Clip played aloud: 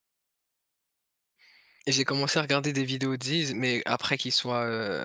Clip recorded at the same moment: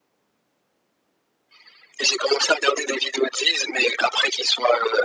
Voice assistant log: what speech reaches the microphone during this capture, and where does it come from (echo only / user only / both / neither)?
echo only